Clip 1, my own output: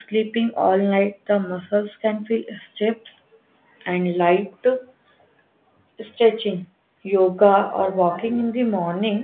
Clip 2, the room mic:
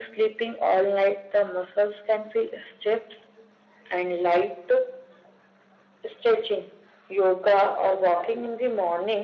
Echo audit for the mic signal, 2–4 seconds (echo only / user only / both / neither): echo only